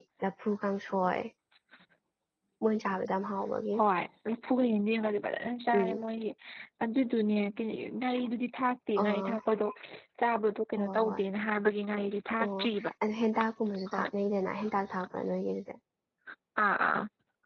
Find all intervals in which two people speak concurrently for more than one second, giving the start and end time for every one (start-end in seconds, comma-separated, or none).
none